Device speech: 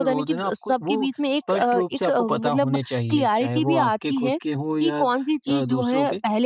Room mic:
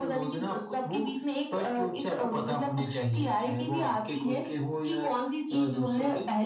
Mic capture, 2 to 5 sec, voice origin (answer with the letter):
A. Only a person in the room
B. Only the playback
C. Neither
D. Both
B